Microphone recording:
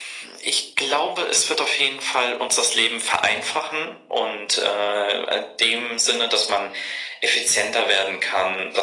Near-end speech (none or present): none